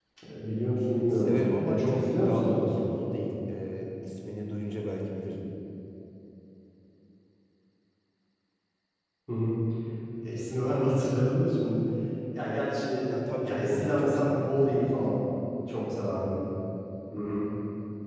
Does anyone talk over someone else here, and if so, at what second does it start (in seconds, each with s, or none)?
1.1 s